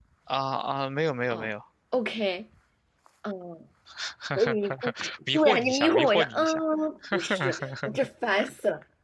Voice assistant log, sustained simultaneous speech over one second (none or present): present